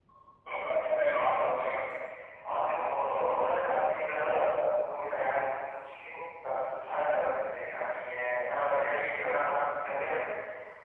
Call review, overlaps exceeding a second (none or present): none